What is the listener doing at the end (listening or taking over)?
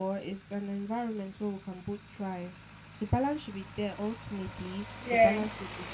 listening